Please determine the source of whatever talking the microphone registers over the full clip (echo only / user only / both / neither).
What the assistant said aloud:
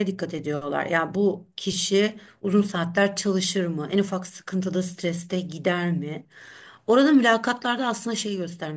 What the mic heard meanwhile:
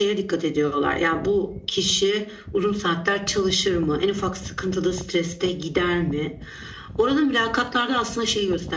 echo only